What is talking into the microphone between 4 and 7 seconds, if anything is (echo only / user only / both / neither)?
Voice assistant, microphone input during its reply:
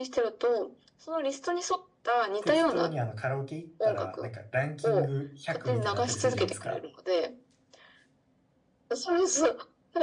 both